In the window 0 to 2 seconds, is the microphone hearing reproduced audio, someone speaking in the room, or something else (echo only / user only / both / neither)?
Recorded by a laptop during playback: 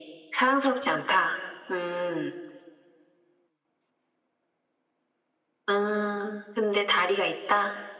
echo only